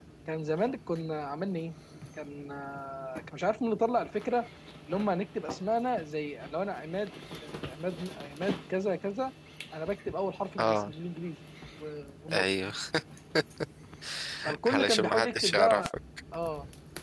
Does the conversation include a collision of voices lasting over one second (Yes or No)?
Yes